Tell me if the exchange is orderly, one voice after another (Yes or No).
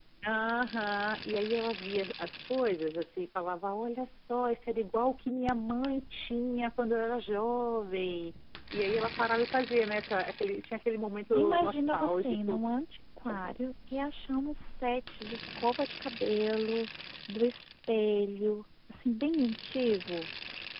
No